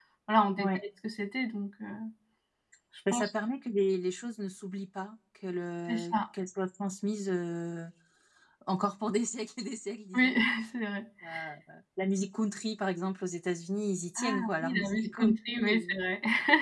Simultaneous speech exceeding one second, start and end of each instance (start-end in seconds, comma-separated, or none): 14.2-15.9